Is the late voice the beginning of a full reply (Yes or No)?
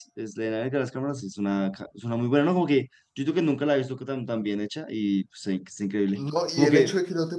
Yes